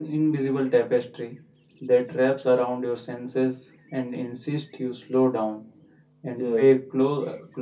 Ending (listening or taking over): listening